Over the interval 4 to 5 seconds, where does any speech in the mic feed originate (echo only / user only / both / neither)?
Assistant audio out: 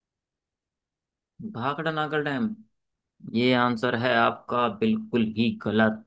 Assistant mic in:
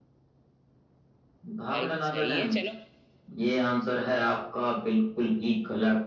echo only